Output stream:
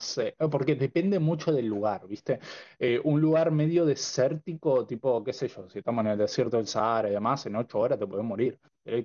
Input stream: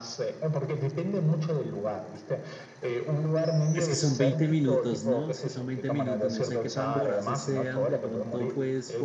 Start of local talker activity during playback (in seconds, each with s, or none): 3.7 s